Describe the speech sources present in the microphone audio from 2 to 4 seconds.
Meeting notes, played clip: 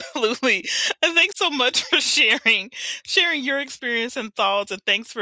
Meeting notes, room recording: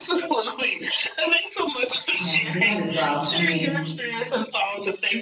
both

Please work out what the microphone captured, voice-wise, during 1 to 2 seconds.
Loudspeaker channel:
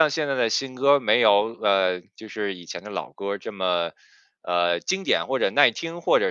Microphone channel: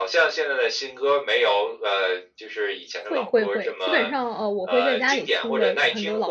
echo only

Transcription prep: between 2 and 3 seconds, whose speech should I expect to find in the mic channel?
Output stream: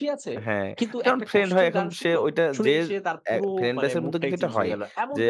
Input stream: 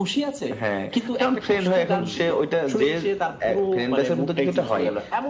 both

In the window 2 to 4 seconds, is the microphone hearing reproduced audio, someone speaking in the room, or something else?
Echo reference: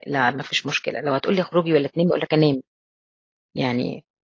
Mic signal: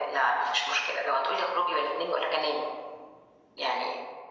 echo only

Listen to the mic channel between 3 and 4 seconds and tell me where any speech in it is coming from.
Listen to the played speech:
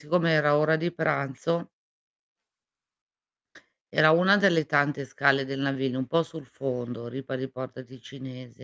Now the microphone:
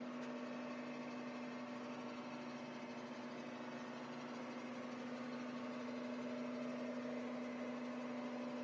neither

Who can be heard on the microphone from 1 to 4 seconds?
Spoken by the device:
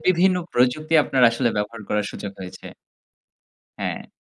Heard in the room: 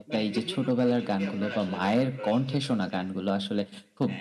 both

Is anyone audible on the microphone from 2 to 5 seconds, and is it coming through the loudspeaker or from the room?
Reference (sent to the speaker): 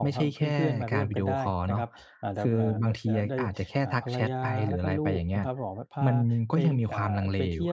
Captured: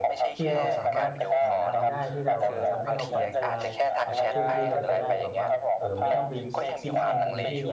both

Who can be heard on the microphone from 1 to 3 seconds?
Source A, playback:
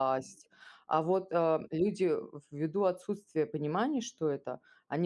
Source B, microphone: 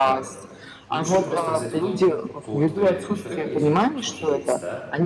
both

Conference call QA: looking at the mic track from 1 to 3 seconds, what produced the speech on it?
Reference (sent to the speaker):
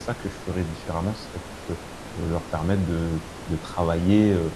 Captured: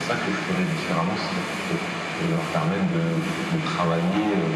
echo only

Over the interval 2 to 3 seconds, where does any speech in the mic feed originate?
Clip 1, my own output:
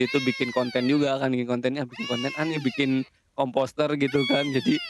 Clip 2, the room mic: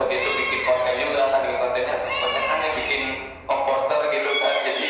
echo only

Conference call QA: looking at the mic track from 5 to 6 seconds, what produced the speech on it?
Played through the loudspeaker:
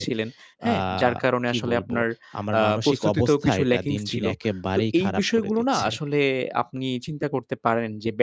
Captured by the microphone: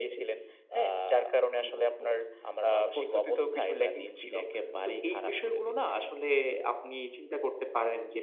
echo only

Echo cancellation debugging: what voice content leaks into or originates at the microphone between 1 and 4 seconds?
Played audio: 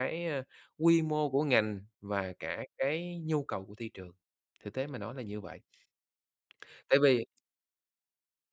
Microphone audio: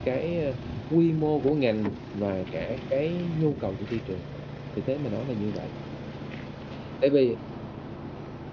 echo only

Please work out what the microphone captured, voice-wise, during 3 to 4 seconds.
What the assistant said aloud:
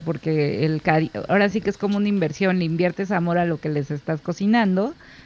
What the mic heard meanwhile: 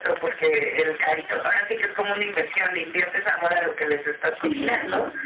echo only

